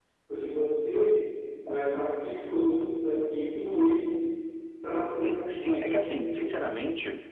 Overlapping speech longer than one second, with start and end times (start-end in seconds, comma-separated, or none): 5.2-6.6